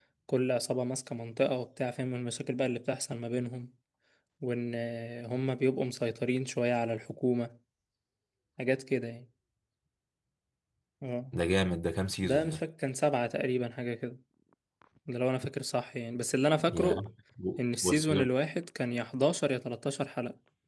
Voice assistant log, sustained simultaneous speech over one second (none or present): none